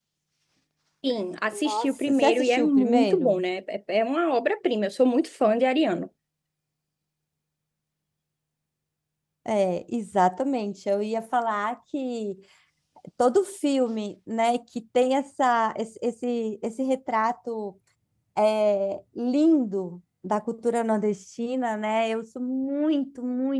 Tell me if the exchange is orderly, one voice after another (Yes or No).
No